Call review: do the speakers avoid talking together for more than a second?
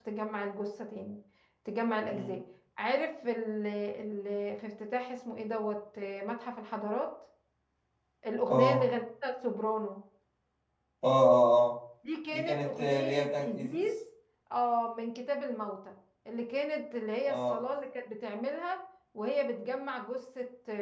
No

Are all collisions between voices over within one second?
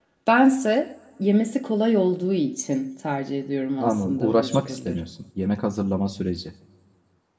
No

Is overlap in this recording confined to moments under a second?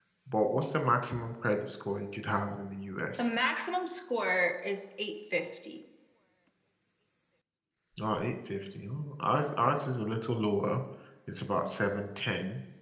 Yes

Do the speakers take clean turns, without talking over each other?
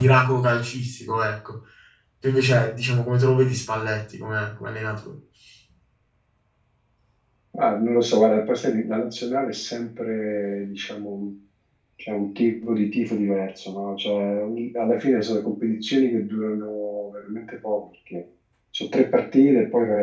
Yes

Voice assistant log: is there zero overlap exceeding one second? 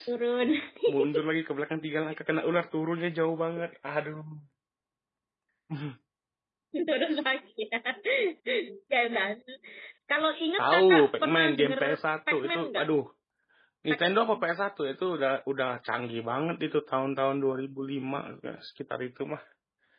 No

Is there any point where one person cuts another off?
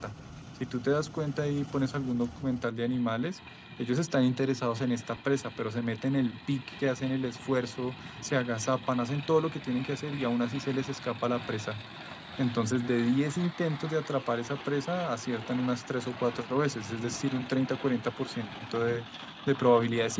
No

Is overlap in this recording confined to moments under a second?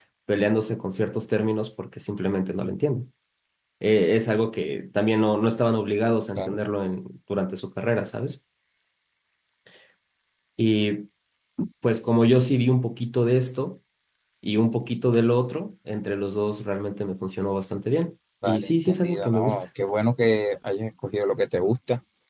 No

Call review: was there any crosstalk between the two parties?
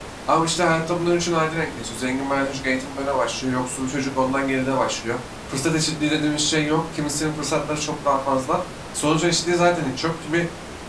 No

